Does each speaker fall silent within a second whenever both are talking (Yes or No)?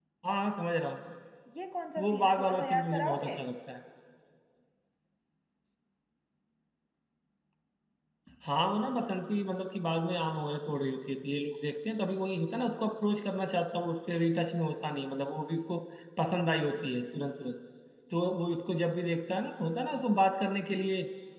No